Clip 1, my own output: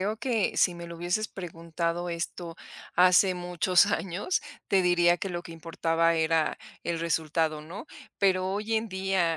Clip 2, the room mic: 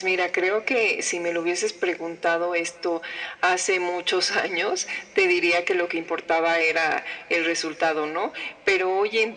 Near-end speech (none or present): none